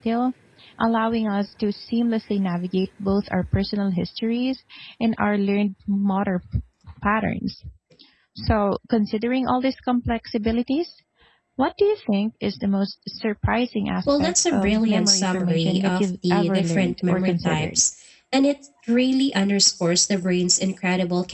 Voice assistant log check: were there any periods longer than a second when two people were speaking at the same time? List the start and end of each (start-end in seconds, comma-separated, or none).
14.0-17.8